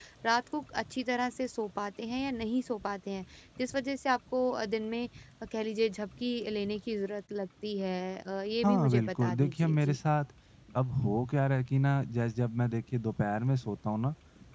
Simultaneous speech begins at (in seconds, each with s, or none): 8.6 s